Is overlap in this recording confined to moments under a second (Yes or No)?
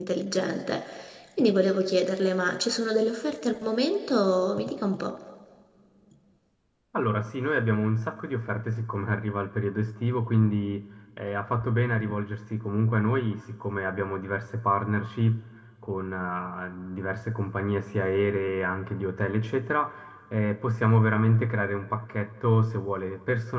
Yes